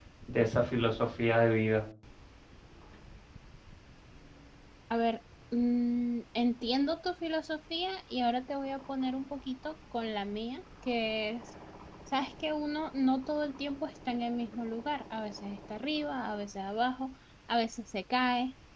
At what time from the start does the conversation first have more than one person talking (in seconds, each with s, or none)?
none